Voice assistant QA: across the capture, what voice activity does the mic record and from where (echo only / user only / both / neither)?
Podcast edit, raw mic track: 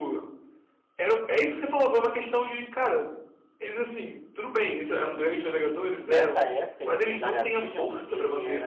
both